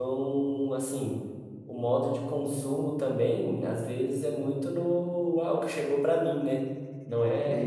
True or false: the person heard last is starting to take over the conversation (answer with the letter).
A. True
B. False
B